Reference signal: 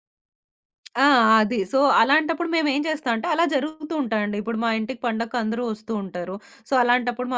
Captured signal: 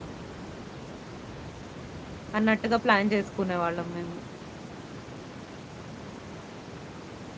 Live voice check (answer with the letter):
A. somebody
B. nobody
A